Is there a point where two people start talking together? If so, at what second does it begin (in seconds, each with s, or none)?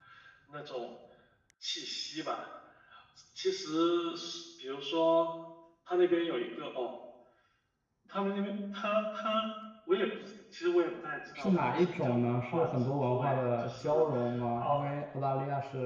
11.3 s